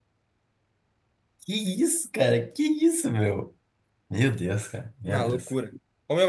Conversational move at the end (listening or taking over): taking over